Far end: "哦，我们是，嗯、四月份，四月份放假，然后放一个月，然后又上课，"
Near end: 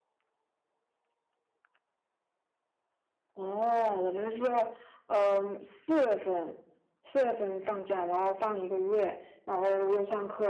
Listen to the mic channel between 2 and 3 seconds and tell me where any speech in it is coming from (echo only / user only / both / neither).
neither